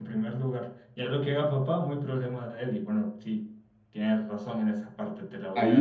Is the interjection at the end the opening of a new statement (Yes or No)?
Yes